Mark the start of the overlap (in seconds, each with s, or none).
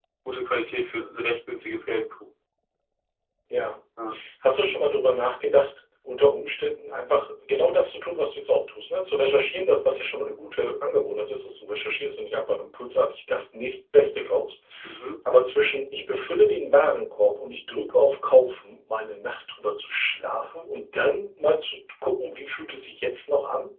none